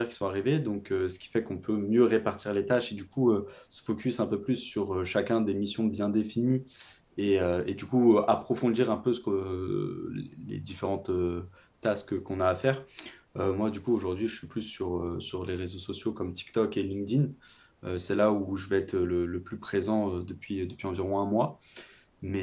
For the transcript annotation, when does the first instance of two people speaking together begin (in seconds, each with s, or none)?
none